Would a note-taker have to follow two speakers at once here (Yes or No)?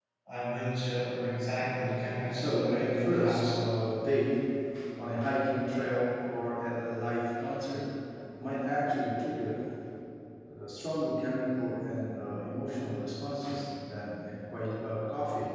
Yes